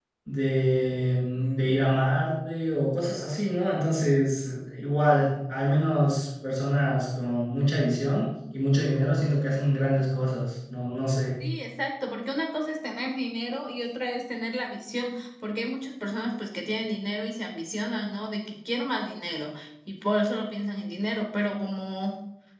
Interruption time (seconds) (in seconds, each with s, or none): none